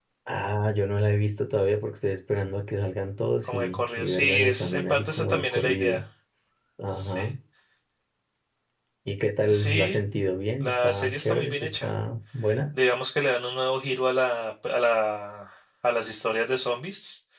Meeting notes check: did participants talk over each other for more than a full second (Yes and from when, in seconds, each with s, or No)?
Yes, from 3.4 s